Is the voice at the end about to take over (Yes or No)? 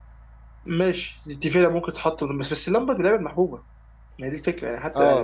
Yes